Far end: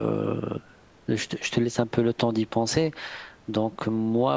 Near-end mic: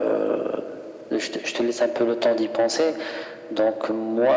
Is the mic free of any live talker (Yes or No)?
Yes